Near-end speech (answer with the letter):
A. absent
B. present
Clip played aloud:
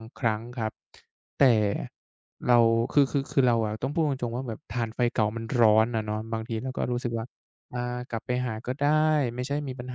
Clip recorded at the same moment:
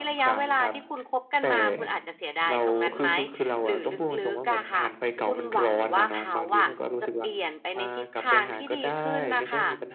B